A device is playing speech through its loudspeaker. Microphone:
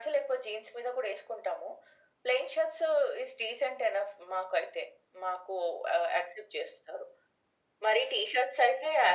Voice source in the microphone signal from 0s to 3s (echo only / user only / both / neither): echo only